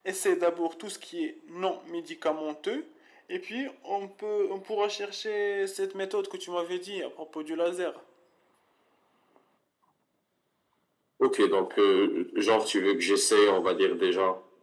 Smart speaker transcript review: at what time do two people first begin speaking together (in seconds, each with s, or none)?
none